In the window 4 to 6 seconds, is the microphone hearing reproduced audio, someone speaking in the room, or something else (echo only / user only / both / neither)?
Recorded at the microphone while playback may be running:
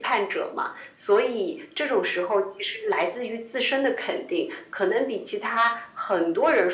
echo only